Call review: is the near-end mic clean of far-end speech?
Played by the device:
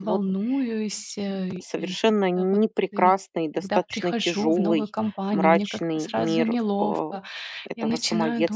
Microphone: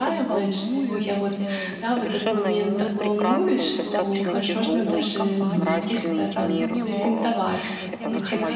No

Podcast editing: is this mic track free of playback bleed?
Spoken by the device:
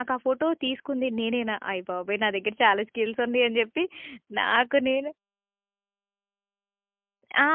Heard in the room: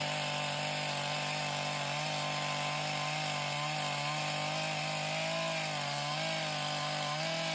Yes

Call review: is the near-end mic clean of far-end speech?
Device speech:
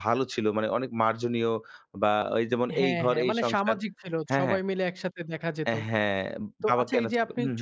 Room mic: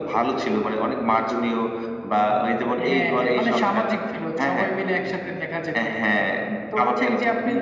No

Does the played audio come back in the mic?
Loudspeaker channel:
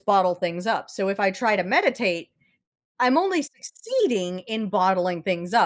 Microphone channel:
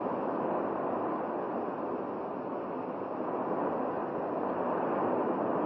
No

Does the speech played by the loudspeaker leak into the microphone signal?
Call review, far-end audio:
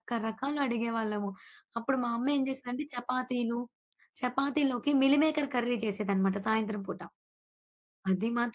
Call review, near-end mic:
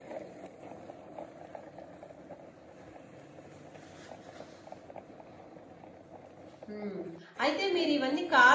No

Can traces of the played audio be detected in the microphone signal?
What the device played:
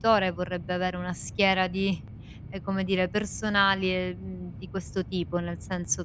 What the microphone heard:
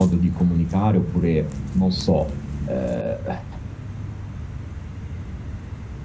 No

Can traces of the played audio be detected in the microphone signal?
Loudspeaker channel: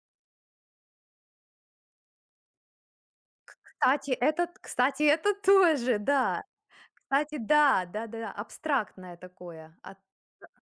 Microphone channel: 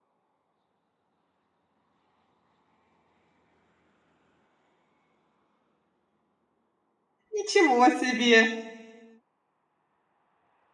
No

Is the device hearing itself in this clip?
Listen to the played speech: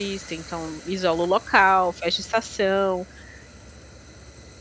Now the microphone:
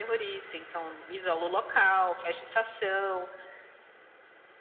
Yes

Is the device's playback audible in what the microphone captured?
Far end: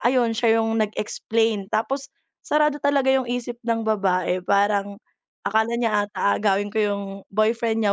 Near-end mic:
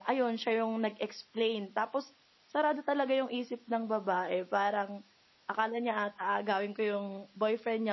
Yes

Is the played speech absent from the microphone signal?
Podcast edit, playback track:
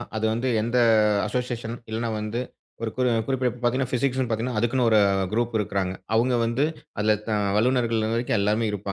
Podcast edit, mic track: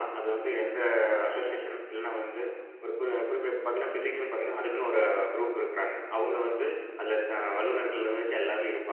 No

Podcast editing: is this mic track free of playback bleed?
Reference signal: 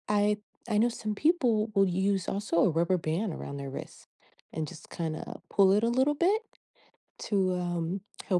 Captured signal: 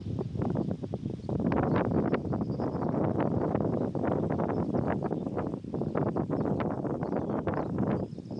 Yes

